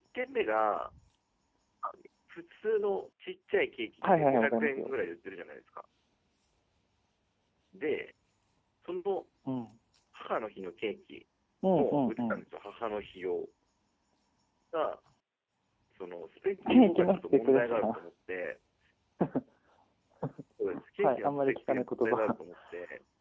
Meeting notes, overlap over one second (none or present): present